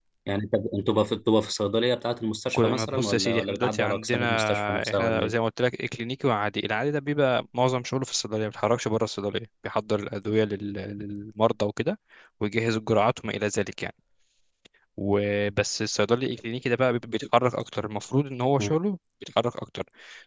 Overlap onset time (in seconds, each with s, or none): 2.4 s